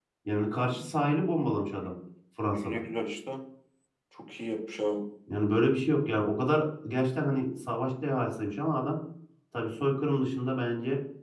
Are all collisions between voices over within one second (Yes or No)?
Yes